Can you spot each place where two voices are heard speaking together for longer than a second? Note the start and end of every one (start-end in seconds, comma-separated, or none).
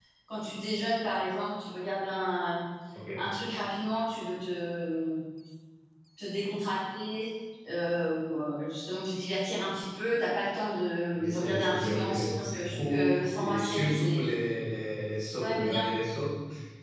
11.1-14.2